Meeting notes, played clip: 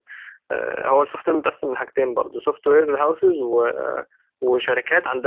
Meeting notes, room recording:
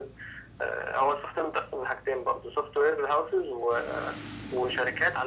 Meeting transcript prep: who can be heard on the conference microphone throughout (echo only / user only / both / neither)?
echo only